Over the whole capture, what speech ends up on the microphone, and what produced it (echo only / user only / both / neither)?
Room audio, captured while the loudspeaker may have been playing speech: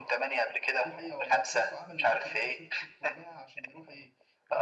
both